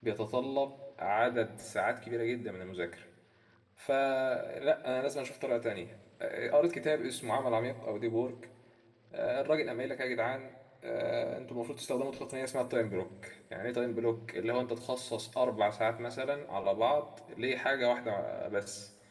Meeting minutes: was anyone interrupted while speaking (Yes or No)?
No